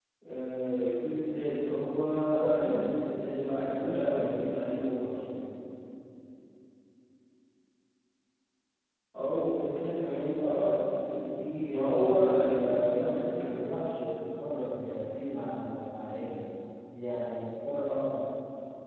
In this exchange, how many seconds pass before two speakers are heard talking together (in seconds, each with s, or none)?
2.3 s